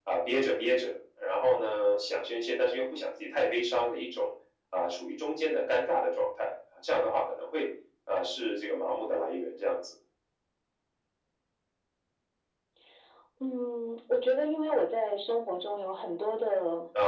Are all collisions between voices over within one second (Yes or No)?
Yes